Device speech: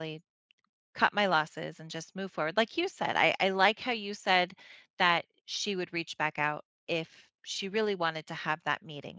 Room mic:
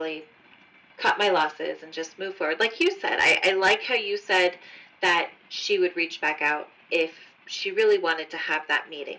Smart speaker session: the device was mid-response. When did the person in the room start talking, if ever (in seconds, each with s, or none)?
none